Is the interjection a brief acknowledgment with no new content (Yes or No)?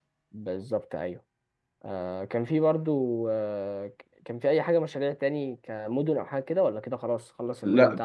No